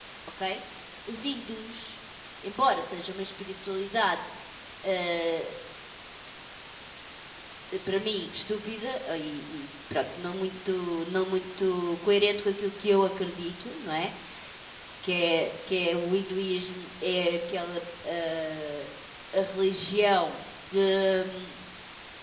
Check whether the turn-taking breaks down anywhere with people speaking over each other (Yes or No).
No